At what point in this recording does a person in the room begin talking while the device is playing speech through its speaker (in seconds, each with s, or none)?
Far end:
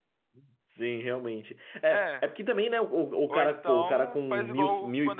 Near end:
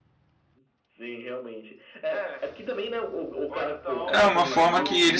4.1 s